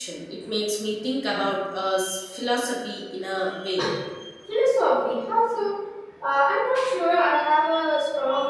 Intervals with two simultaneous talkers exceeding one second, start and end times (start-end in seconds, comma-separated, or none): none